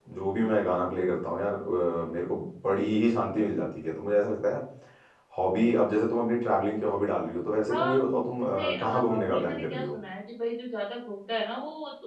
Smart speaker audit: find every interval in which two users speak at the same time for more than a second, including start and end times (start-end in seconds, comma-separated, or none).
7.7-9.9